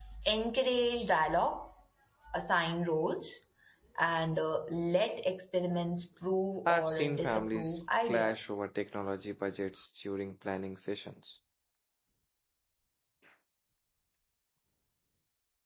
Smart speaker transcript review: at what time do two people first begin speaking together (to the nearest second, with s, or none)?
7 s